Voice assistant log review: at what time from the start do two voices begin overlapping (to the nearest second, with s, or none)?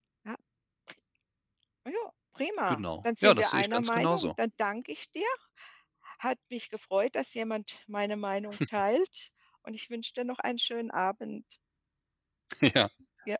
3 s